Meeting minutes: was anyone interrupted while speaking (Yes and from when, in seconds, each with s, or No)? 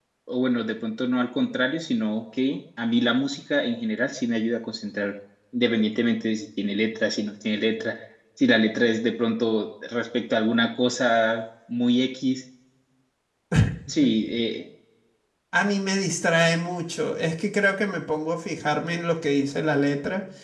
No